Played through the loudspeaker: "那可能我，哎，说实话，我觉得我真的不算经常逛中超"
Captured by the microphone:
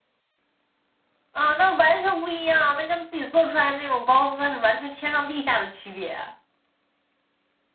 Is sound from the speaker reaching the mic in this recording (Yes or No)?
No